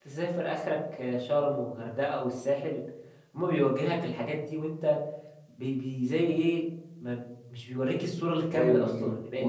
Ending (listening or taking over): taking over